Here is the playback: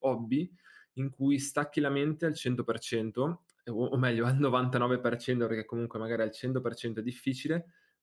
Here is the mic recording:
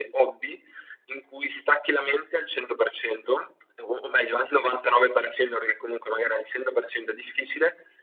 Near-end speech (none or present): none